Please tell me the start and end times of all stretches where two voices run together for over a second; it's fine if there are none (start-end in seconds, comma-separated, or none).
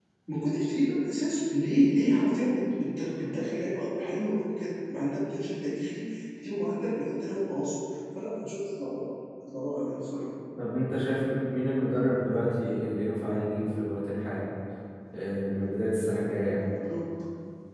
none